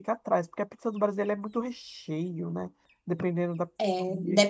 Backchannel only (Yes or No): No